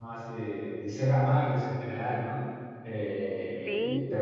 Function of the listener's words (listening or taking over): listening